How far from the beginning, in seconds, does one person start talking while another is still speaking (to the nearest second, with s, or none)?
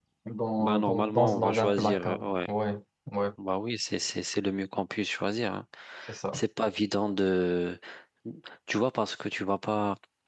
1 s